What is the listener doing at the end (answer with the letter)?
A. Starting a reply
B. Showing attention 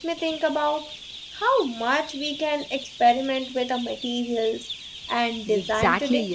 A